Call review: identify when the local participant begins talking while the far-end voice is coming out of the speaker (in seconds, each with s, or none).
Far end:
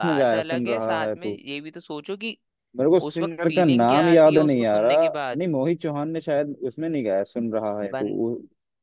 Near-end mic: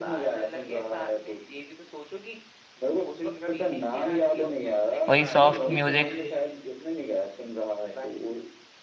5.1 s